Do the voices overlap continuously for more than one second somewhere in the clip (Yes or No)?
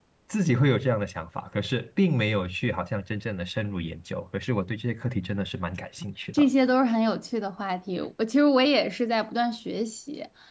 No